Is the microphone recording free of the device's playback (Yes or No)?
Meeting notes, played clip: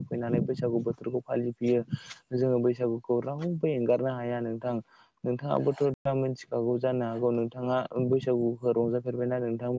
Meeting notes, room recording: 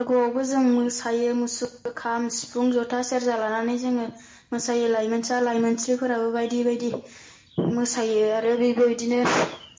Yes